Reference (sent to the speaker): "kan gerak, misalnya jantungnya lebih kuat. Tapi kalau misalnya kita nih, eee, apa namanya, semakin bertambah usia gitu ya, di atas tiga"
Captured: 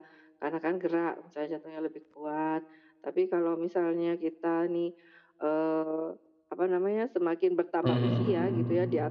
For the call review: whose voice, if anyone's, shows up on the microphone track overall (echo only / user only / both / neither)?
both